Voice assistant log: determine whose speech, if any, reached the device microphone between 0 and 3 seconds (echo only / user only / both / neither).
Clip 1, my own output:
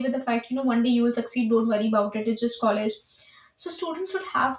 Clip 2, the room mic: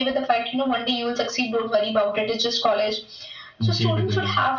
echo only